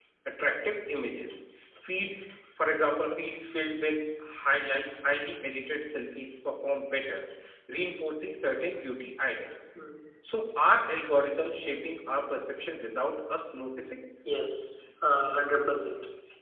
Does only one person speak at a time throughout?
Yes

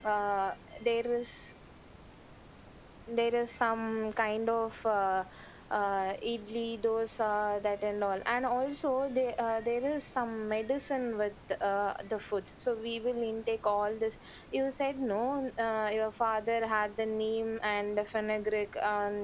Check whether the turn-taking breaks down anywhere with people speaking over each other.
No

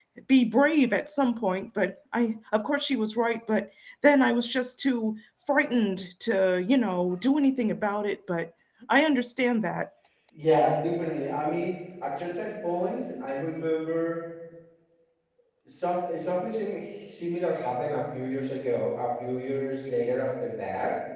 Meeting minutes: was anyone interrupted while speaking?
No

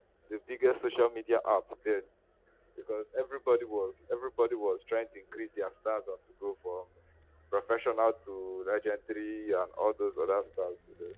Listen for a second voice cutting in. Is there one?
No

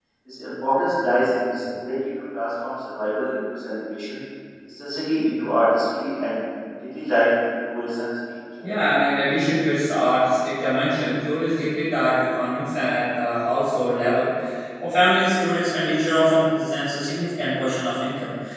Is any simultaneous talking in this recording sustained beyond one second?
No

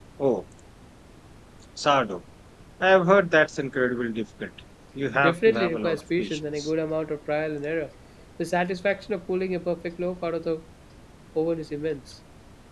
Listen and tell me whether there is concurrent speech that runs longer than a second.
Yes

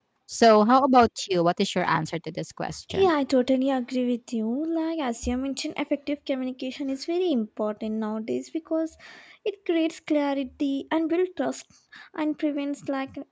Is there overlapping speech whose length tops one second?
No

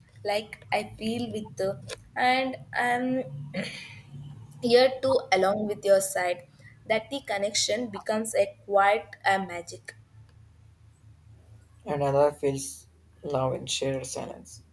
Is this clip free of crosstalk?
Yes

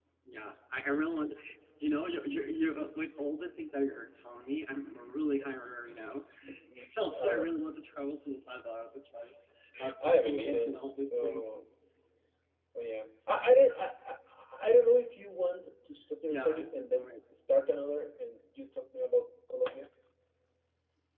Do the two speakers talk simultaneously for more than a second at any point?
Yes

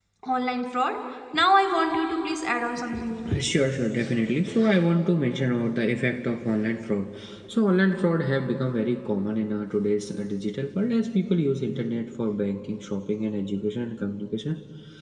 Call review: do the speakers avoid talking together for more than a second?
Yes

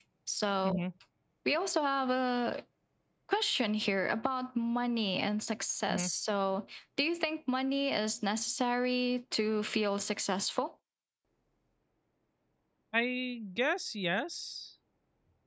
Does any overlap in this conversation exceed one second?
No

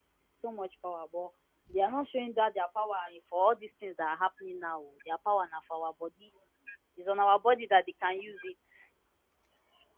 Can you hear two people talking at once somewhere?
No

